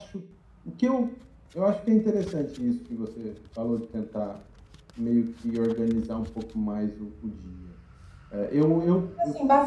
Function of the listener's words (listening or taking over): taking over